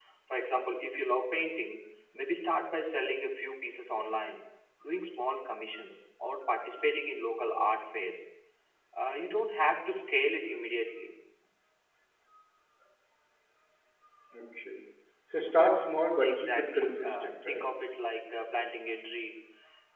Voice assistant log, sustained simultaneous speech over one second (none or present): present